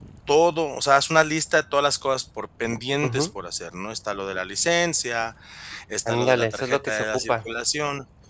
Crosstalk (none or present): present